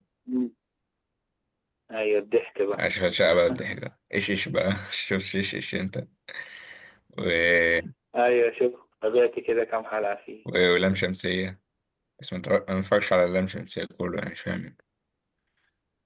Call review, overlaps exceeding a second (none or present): none